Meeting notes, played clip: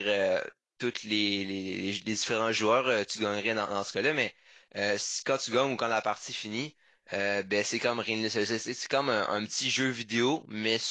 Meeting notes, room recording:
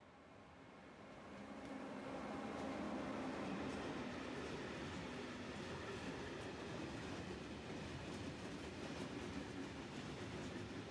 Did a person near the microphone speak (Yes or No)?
No